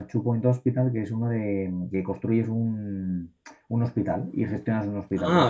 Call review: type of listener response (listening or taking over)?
taking over